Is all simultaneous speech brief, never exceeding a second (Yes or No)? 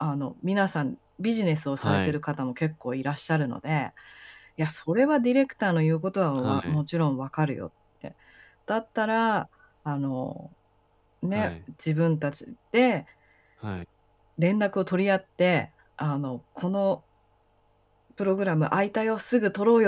Yes